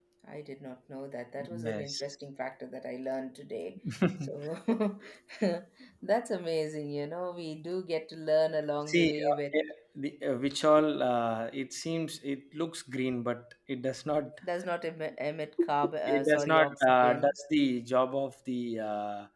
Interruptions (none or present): present